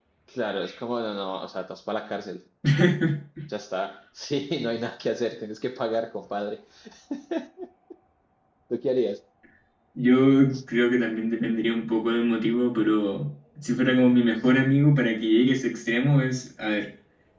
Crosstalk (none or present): none